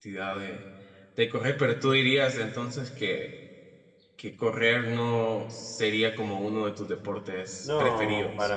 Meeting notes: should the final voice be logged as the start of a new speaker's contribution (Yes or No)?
Yes